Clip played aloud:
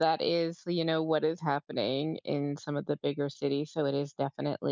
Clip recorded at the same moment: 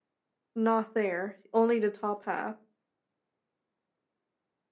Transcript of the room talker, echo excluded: not there, only the top half.

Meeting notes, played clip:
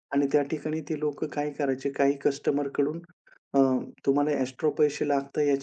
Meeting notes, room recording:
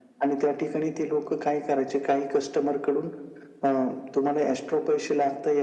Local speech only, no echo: none

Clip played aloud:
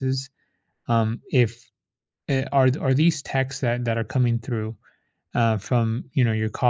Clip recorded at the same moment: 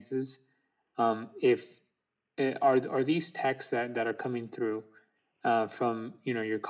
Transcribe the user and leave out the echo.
none

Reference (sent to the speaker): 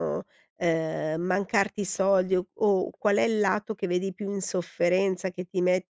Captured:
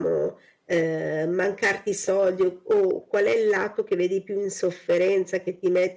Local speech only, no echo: none

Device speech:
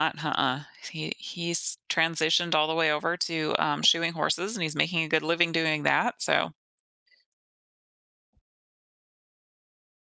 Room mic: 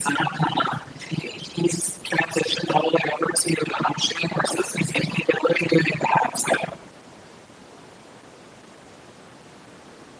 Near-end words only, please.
none

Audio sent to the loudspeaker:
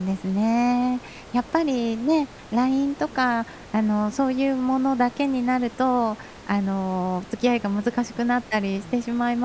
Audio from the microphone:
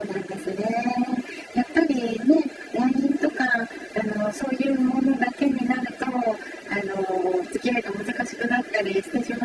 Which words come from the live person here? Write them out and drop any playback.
none

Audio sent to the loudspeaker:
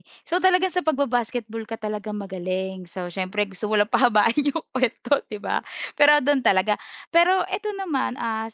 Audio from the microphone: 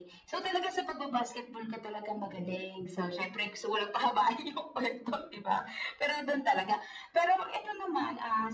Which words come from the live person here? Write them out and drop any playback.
none

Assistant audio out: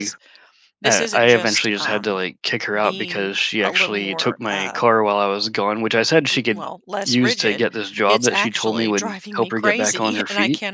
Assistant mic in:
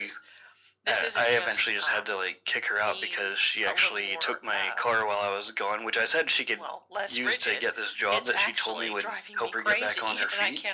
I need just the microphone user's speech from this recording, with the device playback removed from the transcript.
none

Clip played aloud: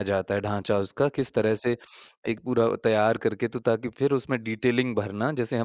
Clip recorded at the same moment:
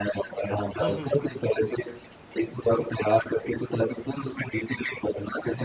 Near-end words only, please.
हुँ, हुँ, हुँ, हुँ, हुँ।

